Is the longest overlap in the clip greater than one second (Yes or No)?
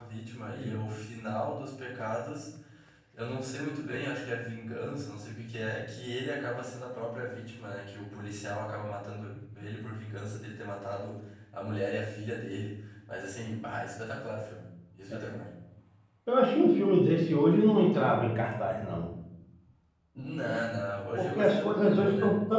Yes